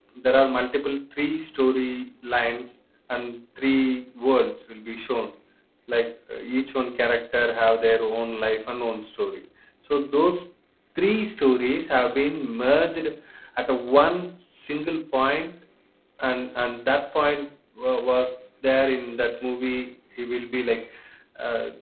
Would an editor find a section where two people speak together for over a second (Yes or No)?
No